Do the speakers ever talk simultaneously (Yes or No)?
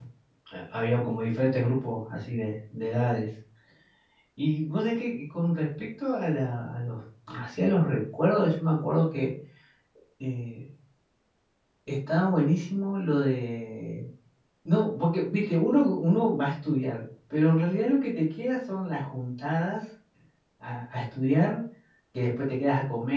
No